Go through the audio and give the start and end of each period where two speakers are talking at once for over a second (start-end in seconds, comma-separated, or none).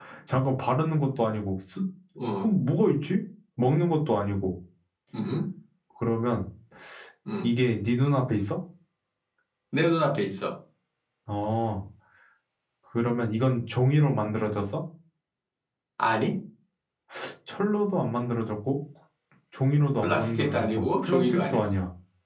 20.0-21.7